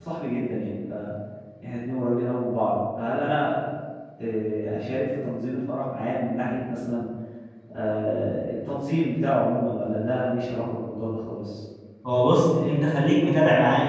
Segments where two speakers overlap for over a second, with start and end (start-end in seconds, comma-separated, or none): none